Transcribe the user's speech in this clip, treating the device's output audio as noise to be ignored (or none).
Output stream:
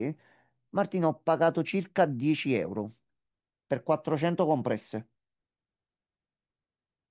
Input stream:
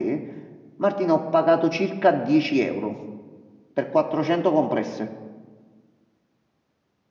none